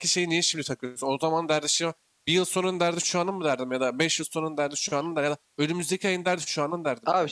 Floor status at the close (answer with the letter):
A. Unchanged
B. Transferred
B